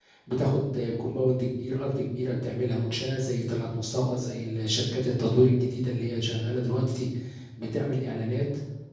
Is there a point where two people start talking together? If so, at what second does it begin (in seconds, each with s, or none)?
none